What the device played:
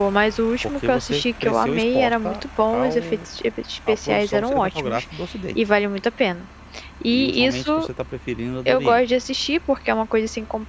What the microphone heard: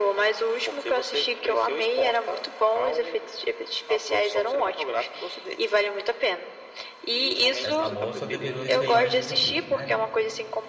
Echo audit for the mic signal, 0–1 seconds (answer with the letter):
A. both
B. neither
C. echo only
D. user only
C